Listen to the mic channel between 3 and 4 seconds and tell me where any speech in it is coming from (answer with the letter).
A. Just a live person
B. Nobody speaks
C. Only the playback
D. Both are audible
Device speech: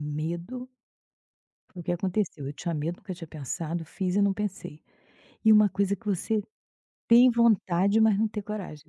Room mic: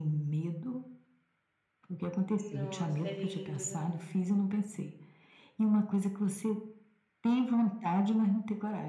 D